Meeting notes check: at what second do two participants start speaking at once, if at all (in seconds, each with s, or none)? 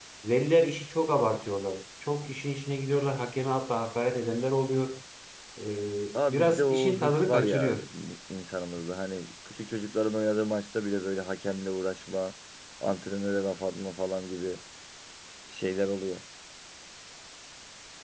6.3 s